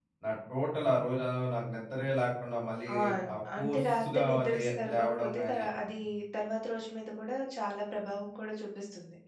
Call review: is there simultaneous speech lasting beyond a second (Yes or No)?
Yes